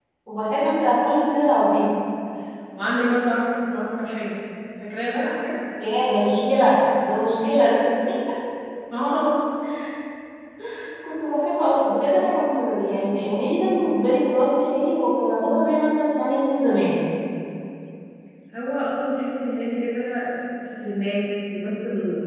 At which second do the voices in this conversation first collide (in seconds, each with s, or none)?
none